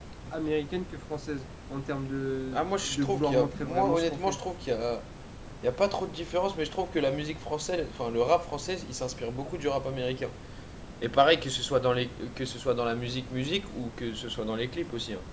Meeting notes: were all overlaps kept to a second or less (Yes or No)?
No